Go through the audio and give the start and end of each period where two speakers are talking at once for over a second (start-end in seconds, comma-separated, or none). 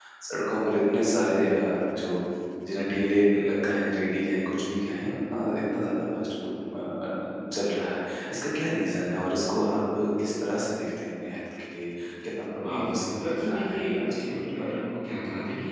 12.6-14.7